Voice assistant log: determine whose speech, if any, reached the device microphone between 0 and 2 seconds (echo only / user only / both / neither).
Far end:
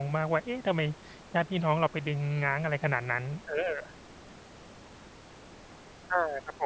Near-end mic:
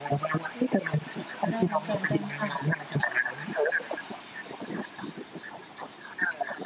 both